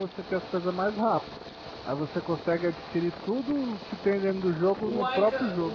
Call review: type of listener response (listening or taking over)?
taking over